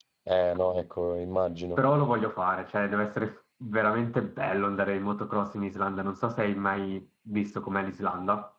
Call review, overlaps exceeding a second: none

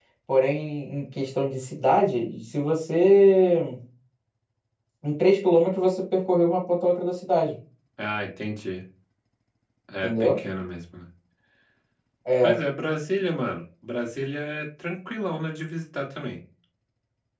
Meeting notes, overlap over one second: none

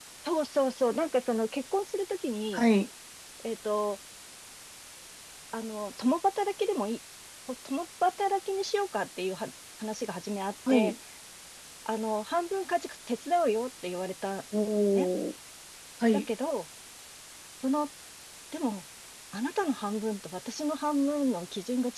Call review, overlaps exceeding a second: none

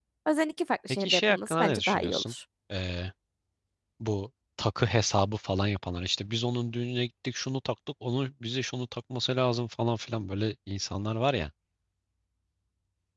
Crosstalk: present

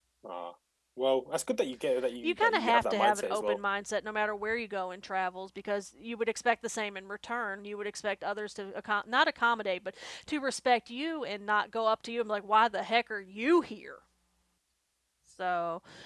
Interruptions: present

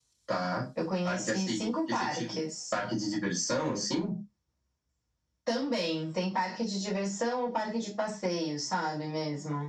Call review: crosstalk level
present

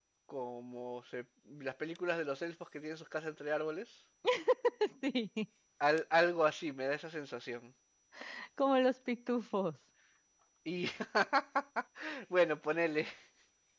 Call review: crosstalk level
none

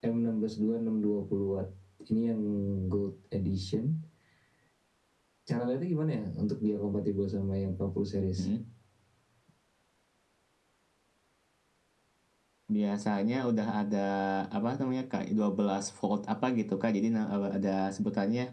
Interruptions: none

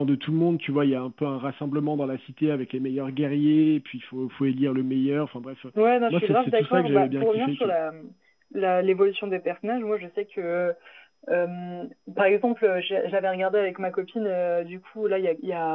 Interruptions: present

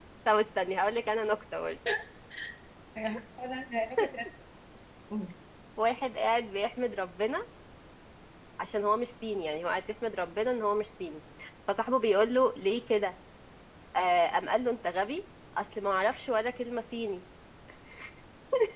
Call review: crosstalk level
none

